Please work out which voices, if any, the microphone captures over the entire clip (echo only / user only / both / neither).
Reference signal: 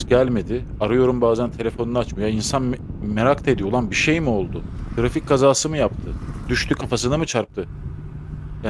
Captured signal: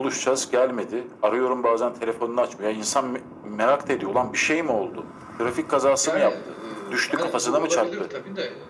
both